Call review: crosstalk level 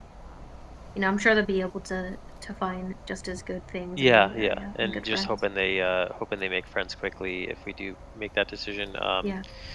present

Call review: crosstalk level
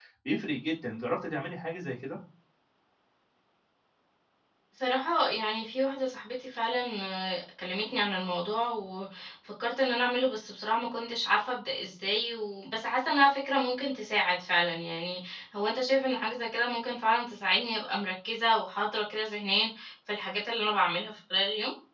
none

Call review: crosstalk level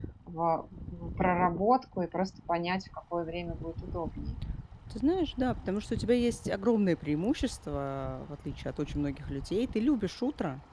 none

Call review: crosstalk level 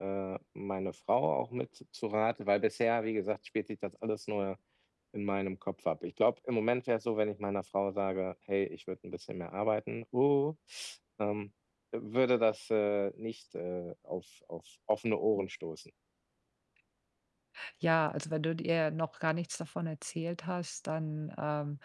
none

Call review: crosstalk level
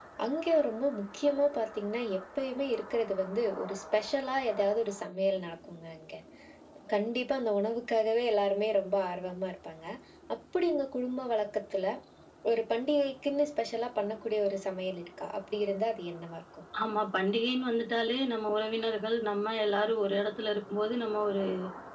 none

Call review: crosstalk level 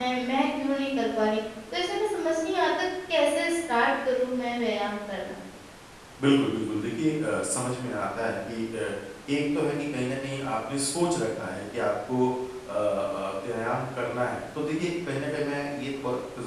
none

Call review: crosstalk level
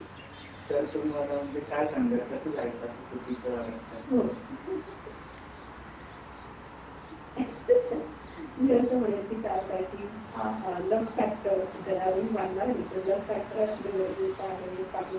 none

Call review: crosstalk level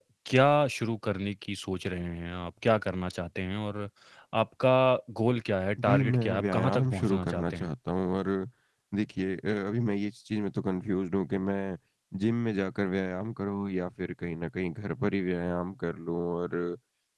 present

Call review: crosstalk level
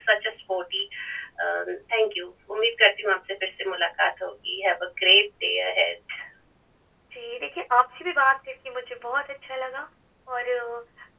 none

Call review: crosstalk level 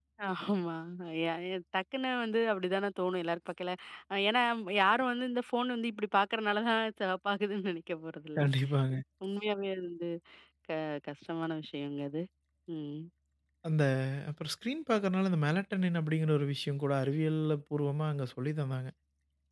none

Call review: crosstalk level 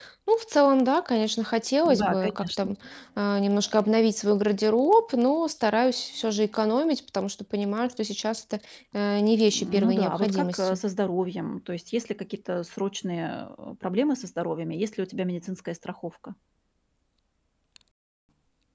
present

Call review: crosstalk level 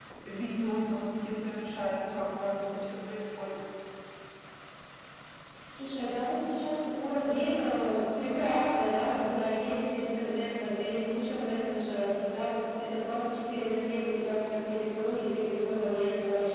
none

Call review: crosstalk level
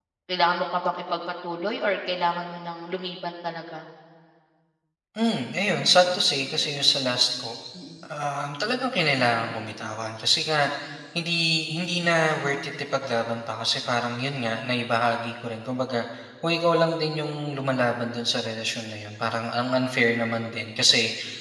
none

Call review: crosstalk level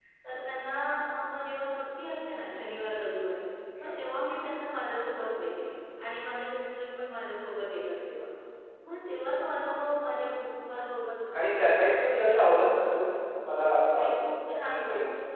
present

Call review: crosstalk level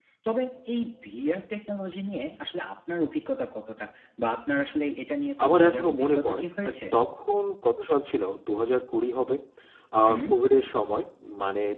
present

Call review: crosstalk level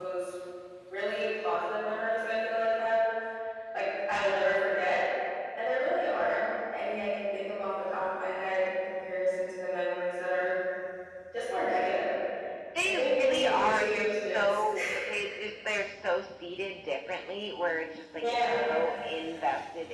present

